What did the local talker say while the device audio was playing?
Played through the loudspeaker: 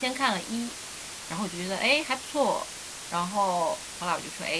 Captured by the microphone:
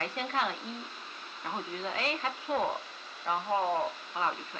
none

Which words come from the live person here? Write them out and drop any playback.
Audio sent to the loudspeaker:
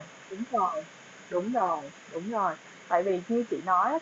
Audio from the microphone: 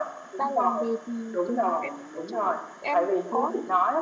ta làm về thì trường em nói chung là em có

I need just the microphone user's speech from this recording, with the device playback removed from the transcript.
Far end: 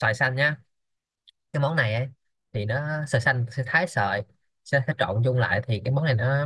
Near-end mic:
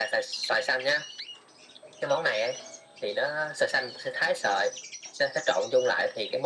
none

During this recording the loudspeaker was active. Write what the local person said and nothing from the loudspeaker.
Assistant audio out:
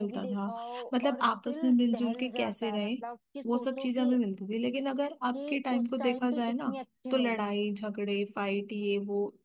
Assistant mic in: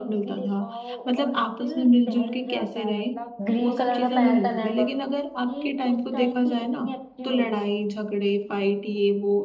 ग्रीन कलर का पहना था लहंगा

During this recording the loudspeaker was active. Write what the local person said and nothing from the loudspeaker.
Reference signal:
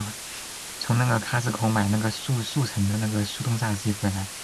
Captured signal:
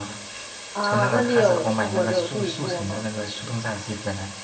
啊，那你有试过就自己做吗？

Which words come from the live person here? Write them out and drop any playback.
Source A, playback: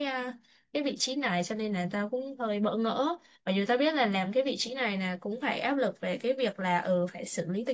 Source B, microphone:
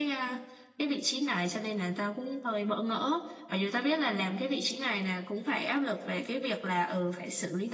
none

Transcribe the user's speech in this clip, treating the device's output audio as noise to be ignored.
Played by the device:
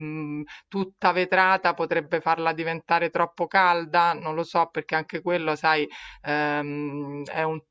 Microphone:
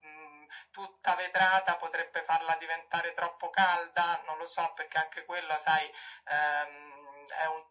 none

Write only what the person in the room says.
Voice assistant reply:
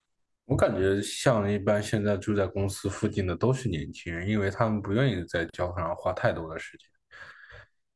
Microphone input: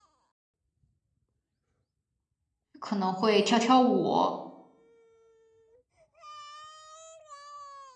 可能会跳跳舞，

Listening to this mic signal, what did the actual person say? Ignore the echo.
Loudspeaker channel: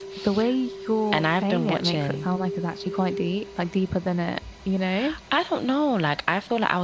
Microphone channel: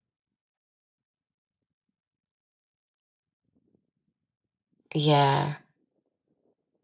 Yeah.

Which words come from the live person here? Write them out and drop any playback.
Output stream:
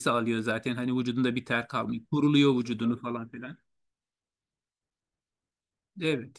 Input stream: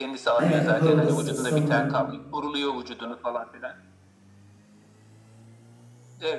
Evet buhar odası, sauna.

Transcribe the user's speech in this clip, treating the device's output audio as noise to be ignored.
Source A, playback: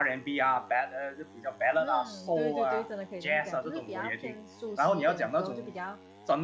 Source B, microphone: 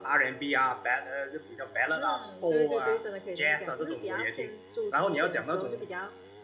none

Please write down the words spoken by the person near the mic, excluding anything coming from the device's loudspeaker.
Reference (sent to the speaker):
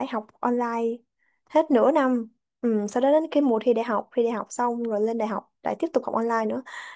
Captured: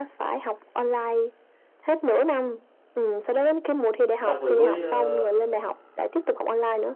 xong rồi với ờ,

